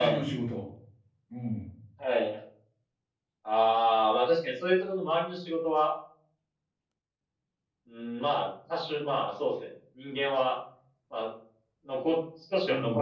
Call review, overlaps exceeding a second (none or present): none